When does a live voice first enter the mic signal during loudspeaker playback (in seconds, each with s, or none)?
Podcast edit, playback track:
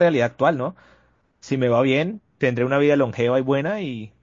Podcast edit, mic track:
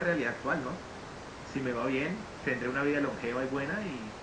none